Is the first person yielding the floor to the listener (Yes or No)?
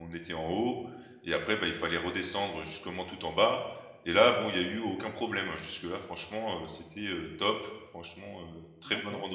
Yes